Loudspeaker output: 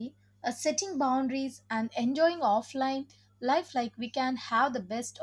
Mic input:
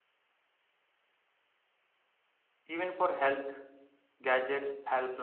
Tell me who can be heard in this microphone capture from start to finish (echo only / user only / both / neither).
user only